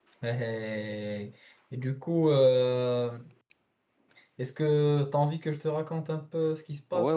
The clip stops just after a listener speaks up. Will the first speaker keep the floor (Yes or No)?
No